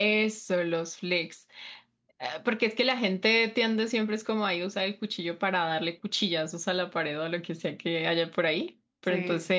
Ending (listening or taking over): listening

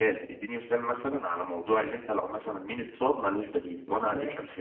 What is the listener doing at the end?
taking over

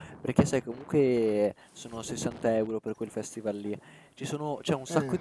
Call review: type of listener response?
listening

